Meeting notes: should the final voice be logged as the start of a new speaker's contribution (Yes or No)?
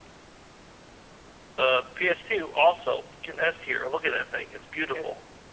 Yes